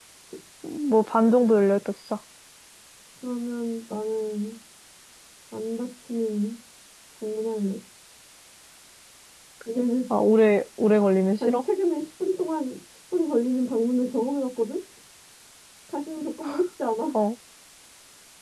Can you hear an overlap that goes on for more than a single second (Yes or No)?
No